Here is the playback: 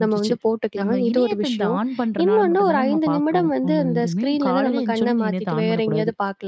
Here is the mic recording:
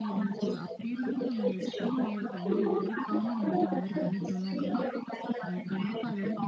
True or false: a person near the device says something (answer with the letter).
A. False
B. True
B